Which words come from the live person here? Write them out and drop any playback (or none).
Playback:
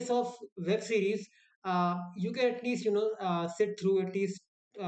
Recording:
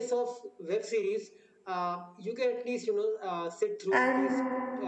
and